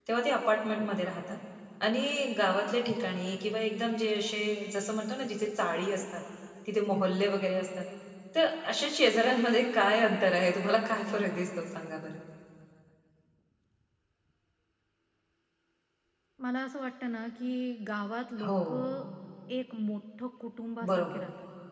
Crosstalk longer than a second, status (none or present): none